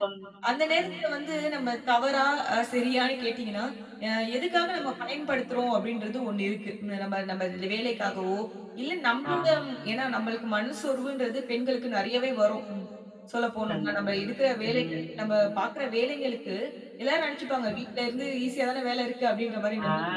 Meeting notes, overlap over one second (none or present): none